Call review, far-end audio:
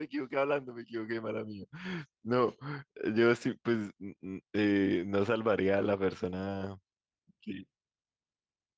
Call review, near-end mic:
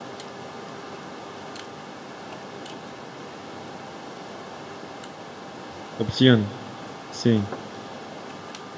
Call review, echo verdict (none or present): none